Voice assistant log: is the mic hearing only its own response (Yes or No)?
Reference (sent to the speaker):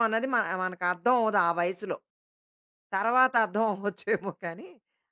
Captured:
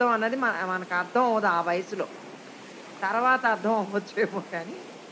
Yes